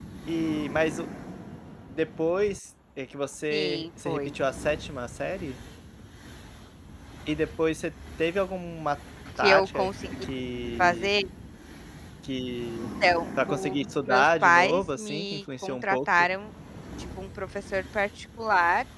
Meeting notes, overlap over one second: present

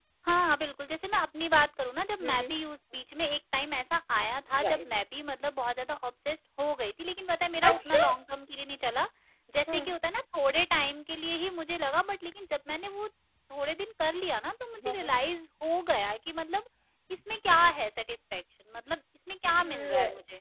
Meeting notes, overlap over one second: none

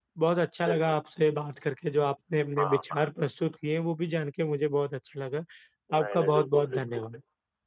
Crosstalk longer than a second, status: present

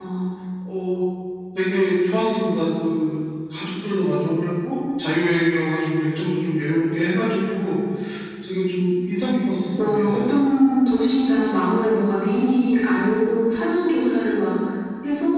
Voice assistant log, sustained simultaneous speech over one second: none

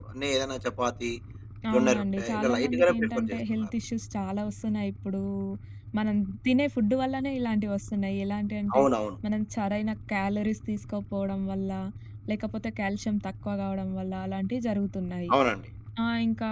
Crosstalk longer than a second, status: present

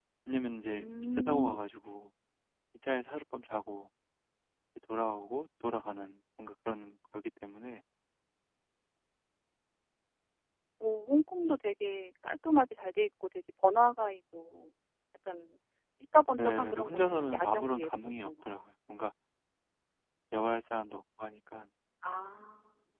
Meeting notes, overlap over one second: present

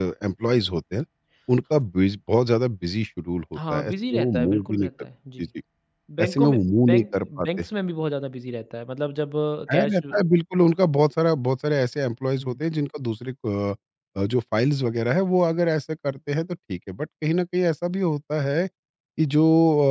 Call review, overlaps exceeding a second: present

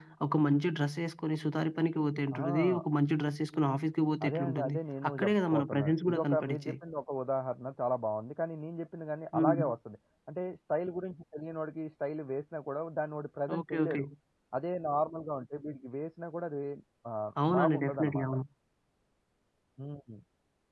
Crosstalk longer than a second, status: present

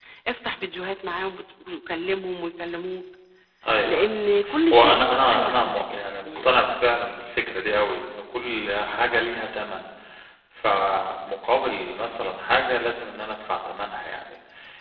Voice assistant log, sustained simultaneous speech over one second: present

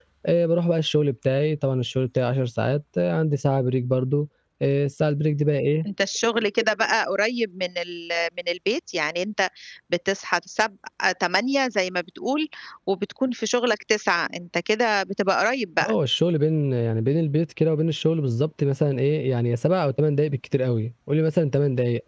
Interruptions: none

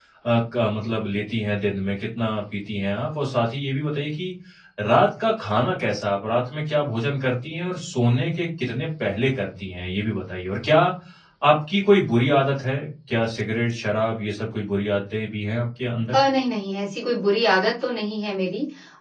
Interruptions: none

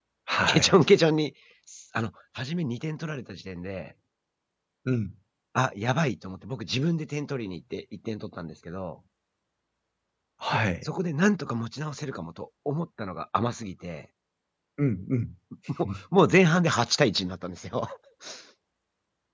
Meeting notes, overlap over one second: none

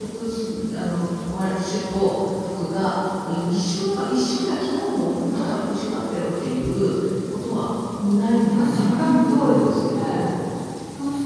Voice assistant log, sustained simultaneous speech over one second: present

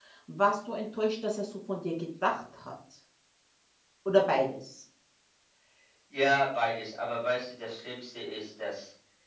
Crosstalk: none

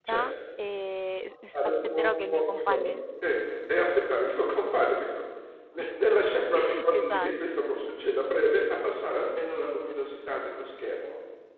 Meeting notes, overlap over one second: present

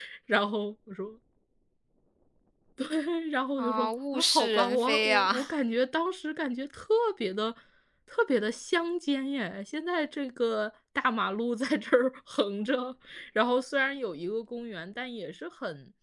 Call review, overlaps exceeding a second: present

